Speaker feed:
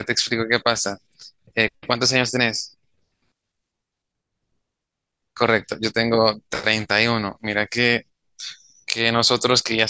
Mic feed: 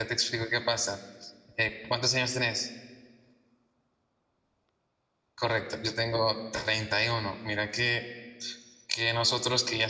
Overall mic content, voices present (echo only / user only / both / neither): echo only